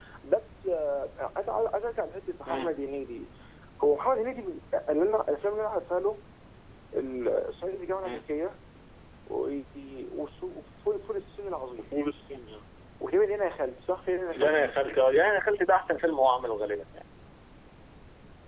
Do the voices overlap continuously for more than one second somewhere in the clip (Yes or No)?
No